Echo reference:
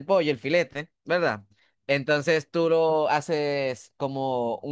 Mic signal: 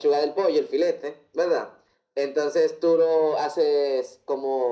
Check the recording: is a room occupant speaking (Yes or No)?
No